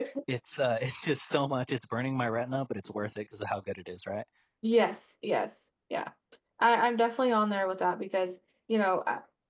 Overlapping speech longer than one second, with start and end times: none

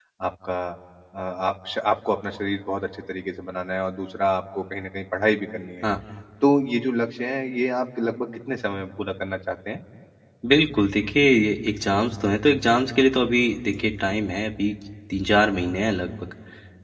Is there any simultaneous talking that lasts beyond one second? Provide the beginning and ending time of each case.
none

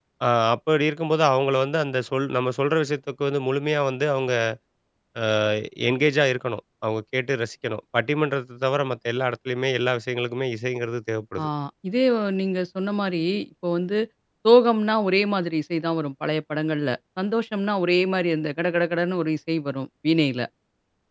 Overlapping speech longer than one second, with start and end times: none

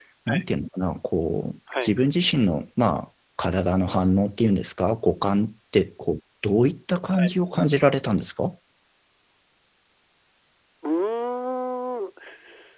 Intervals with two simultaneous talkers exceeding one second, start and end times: none

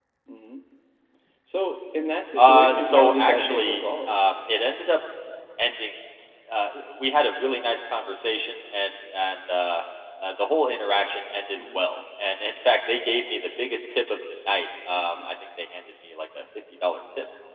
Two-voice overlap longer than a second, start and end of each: 2.4-4.2

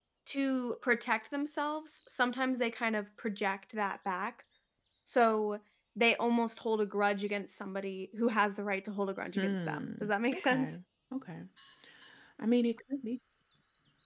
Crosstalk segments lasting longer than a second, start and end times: 9.4-10.8

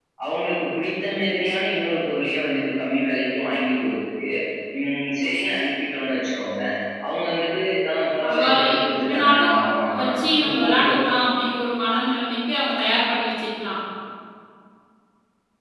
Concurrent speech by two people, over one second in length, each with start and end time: 8.2-10.0

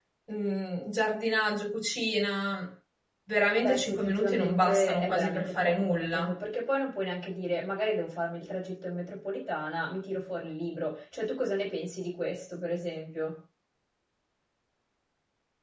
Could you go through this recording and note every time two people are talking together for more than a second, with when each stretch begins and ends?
3.6-6.3

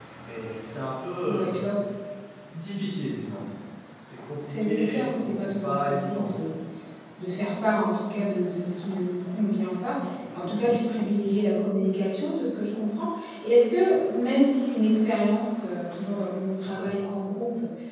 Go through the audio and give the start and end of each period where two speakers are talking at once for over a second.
4.5-6.6

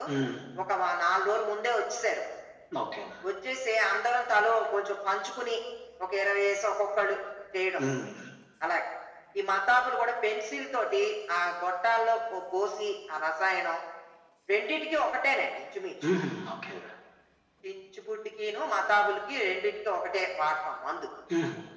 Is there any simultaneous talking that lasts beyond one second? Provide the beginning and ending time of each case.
none

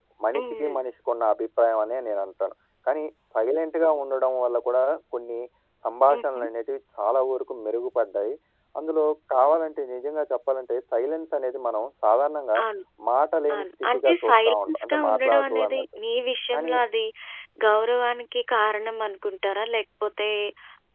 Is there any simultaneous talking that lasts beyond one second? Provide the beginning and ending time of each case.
13.5-15.8

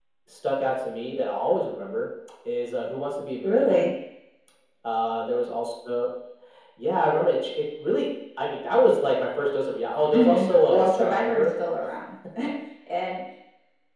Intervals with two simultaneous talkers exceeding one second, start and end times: 10.1-11.5

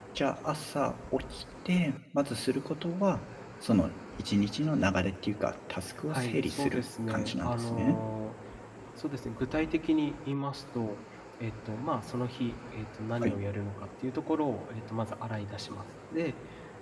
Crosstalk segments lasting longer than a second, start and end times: 6.1-8.0

